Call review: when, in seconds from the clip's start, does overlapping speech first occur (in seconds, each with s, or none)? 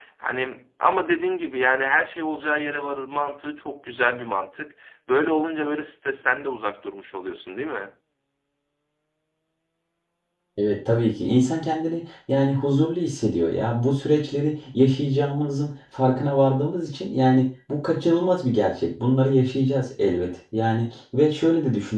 none